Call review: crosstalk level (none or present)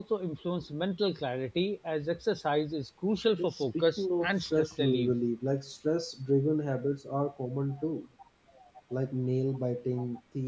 present